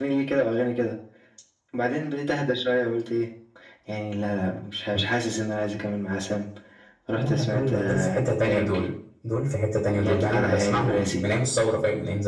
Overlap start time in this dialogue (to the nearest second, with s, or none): 7 s